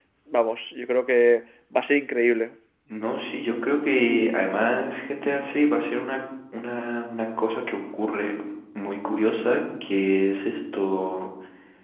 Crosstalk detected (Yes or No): No